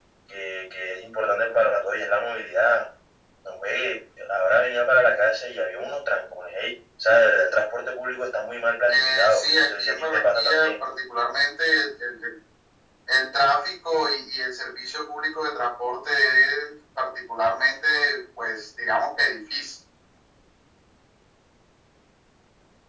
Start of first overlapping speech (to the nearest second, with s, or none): 9 s